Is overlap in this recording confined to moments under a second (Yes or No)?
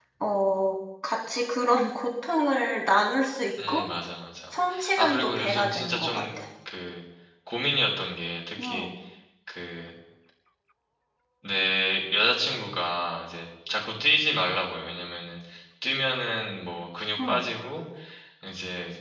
No